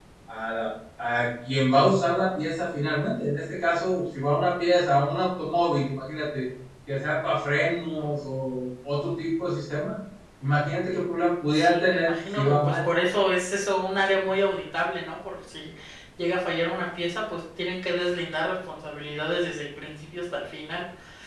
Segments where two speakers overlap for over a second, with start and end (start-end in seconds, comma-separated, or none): 11.5-12.8